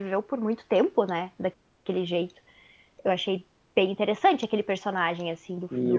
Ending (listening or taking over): taking over